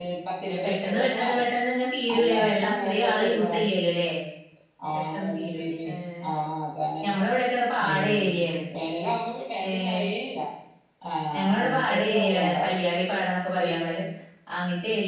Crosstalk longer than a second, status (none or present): present